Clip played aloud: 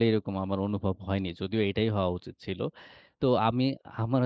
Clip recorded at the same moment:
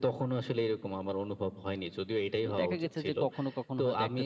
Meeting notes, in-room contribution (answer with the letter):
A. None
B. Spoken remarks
B